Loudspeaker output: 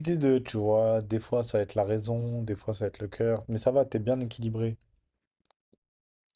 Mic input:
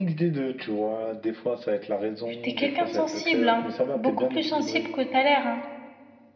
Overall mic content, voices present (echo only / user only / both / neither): both